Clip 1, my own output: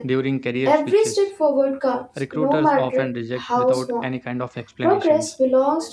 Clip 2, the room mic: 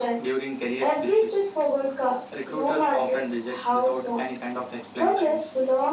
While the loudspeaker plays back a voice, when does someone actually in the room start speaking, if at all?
none

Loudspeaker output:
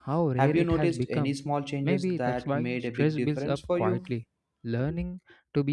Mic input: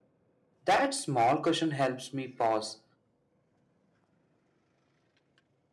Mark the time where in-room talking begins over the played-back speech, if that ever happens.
0.6 s

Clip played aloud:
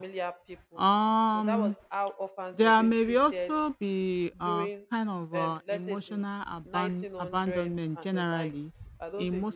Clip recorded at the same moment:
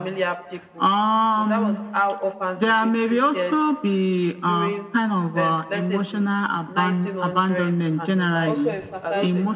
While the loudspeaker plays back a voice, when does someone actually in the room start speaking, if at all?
8.4 s

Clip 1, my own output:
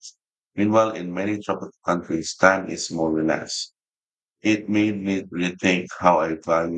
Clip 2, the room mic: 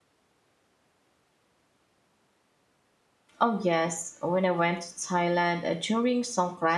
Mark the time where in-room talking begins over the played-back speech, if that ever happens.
3.4 s

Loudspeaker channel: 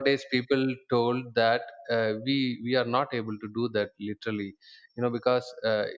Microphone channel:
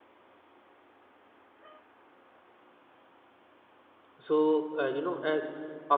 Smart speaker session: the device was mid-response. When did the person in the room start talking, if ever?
4.2 s

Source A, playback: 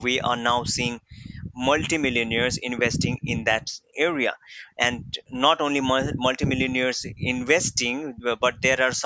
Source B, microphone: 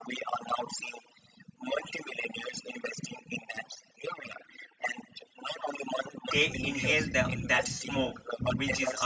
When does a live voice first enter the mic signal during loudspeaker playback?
6.3 s

